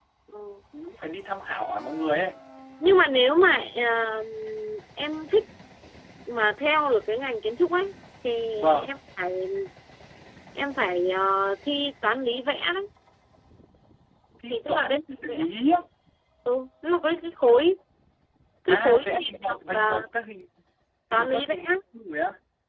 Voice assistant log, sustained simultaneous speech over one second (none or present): present